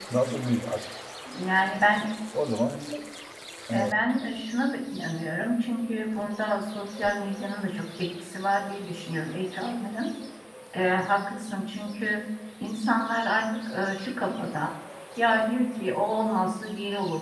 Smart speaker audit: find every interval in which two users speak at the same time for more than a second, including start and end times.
none

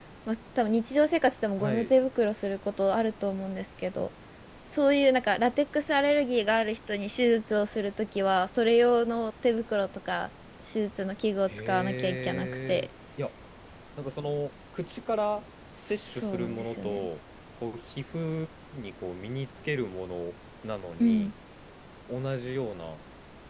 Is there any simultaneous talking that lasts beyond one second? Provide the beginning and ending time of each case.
11.5-12.9, 15.8-17.1

